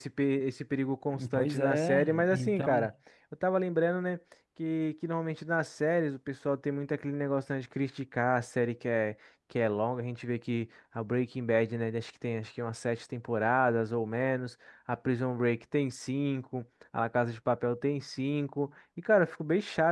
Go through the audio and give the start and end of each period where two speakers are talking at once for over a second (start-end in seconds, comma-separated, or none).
1.3-2.9